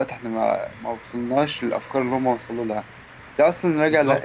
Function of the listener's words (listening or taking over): listening